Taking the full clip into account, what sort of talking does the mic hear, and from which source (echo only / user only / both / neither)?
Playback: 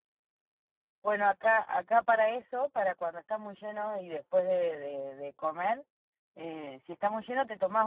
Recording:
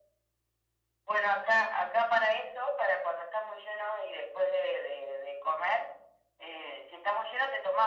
echo only